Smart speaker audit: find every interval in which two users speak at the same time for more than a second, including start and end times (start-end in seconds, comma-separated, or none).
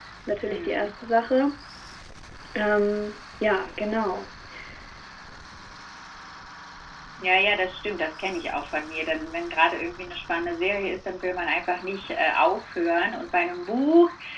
none